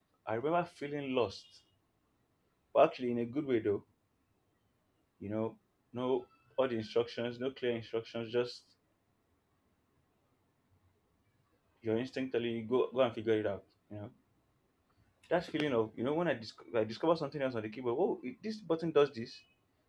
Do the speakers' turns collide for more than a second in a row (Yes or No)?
No